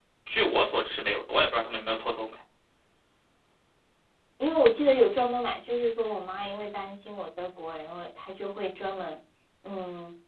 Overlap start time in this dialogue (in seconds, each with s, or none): none